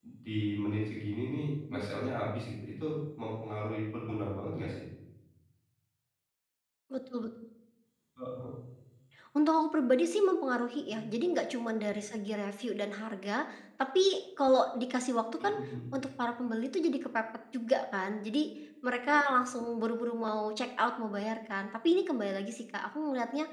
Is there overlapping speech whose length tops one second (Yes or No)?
No